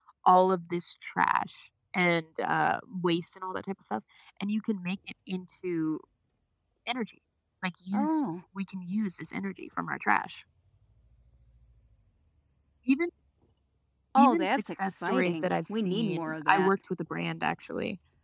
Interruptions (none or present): present